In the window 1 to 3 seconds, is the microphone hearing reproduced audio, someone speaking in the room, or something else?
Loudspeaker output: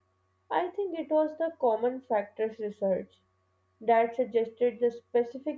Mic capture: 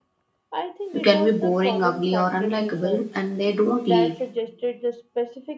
both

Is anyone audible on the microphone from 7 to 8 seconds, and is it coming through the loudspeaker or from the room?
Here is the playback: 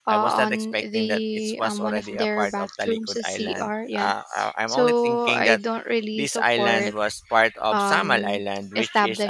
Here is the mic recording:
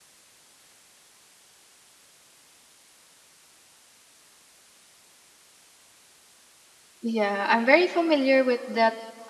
user only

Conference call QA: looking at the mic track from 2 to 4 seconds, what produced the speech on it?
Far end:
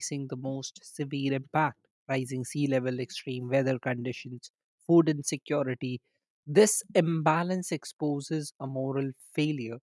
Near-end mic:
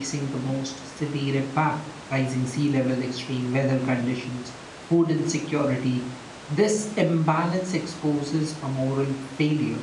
echo only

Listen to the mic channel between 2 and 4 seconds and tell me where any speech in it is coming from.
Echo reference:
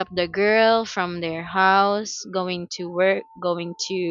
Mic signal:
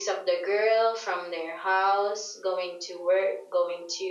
echo only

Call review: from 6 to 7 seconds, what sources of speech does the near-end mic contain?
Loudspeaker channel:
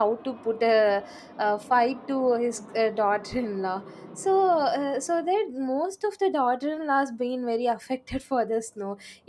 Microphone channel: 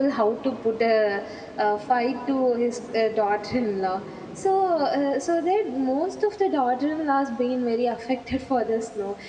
echo only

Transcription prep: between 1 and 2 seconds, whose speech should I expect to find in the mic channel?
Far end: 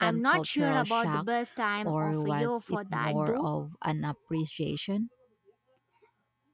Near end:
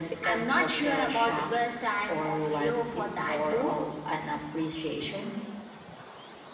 echo only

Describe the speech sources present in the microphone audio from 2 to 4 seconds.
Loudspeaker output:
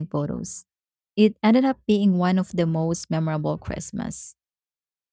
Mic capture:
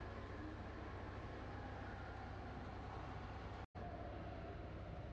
neither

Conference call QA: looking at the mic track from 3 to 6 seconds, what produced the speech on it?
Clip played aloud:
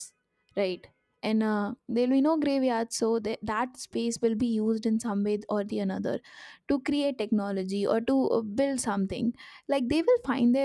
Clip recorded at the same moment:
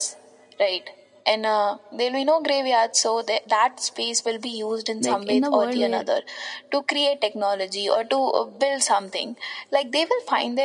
both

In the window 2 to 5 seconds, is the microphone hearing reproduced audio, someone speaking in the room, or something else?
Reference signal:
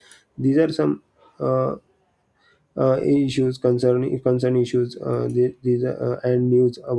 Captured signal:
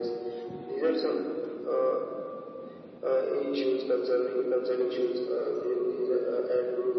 echo only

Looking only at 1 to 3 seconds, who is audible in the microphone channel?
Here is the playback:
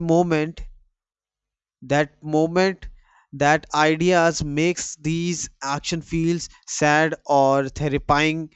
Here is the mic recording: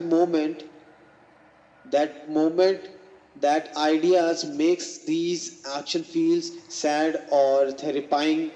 echo only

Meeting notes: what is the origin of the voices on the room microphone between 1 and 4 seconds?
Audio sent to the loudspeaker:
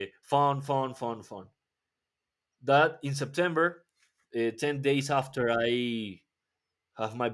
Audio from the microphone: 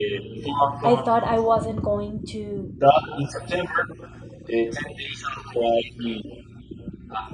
both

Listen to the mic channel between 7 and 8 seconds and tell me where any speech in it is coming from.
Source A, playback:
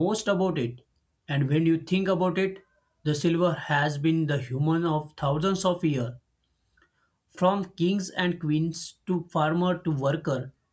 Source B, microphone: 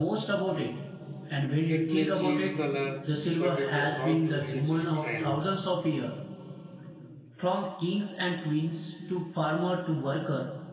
echo only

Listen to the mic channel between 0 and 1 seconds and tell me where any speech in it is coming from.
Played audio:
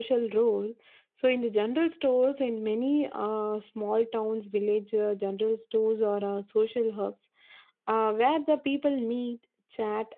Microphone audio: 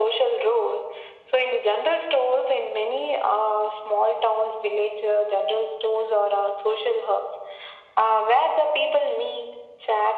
echo only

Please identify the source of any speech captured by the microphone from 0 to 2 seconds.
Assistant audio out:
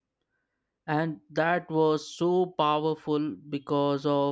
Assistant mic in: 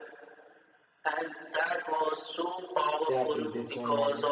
echo only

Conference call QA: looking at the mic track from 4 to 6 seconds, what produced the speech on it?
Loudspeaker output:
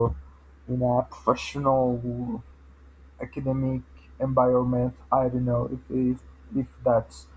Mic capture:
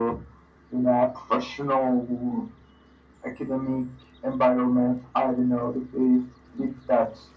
echo only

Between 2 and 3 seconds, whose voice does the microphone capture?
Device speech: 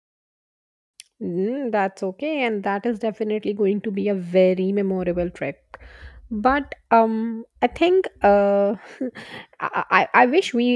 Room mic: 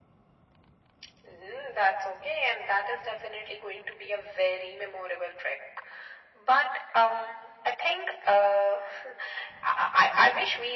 echo only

